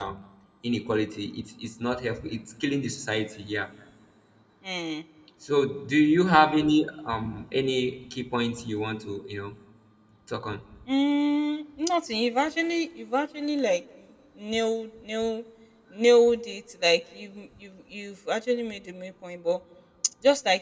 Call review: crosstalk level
none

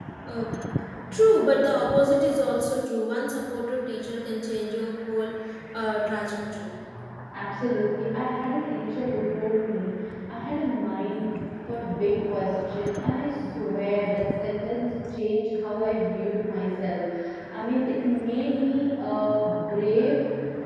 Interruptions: none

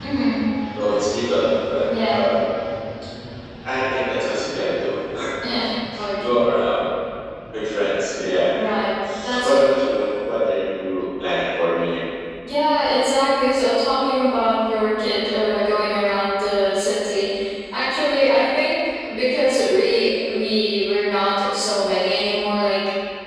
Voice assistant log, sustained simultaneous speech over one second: none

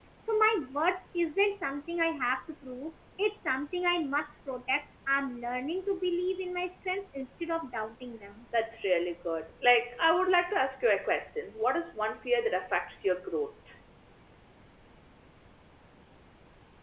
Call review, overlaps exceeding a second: none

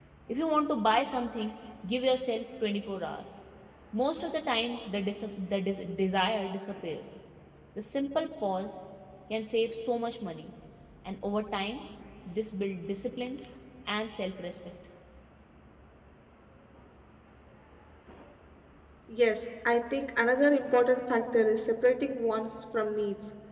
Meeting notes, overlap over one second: none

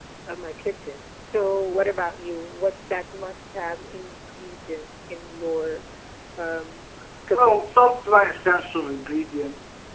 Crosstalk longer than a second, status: none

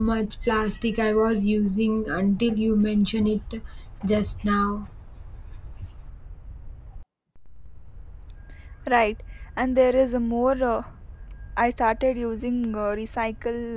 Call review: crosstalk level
none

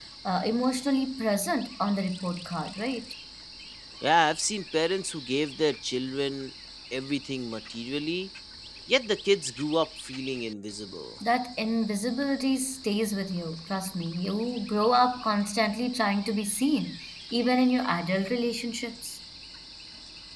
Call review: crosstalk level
none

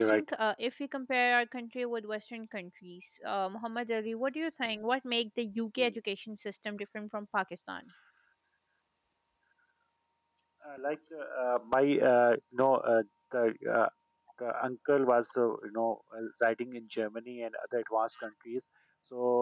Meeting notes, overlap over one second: none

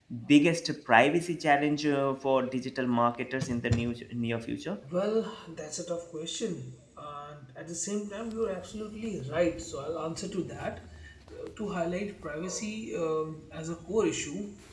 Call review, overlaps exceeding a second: none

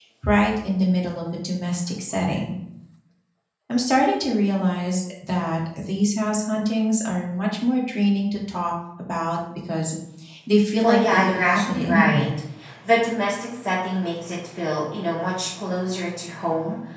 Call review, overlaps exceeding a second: present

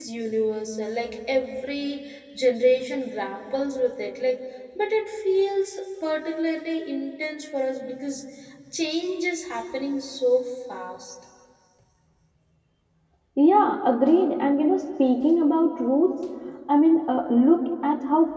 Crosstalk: none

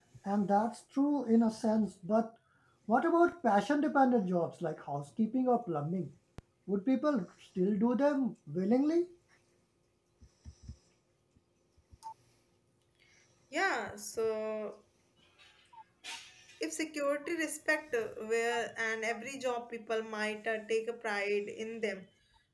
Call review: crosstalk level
none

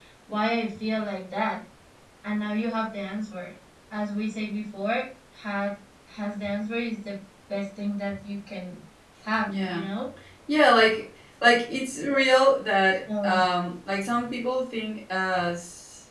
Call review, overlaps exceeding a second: none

